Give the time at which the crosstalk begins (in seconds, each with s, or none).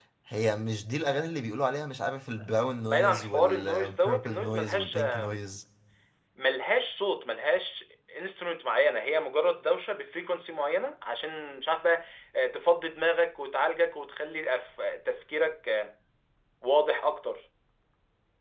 2.9 s